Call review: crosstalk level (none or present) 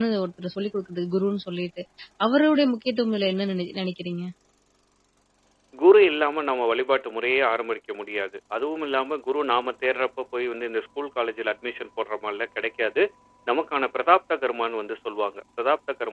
none